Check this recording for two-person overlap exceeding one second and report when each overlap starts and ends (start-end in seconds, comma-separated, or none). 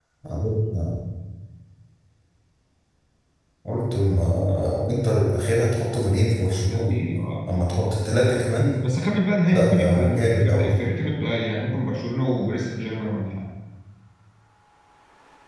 9.5-10.7